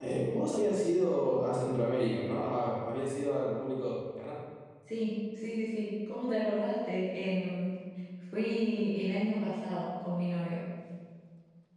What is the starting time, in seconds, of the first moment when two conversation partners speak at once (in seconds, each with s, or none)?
none